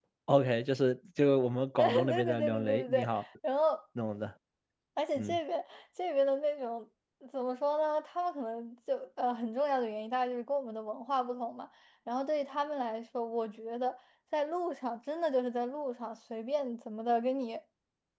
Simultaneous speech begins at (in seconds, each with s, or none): 1.8 s